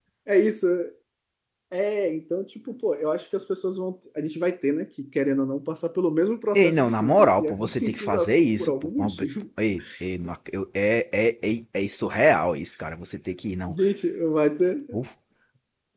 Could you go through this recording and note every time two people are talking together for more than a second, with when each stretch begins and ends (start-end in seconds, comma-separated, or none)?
6.5-9.1